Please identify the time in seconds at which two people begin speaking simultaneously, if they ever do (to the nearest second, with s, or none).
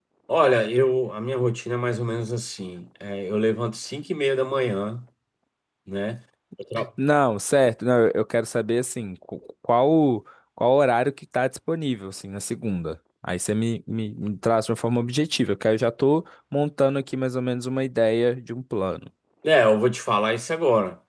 none